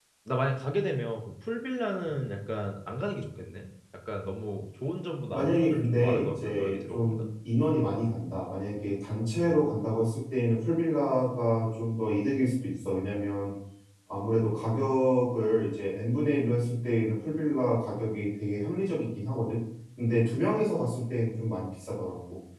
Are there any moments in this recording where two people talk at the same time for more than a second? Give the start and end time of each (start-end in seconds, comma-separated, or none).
5.3-7.1